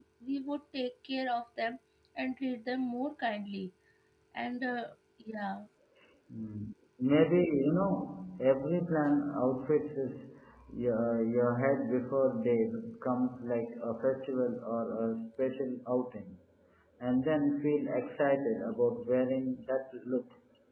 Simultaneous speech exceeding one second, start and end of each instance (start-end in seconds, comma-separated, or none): none